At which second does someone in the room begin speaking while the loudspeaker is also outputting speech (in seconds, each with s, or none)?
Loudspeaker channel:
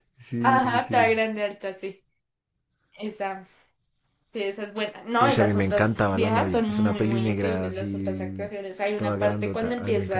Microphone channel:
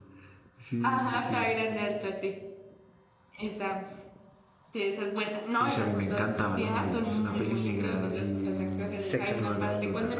9.0 s